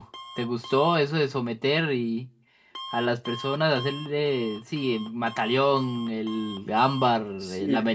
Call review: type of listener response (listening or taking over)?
taking over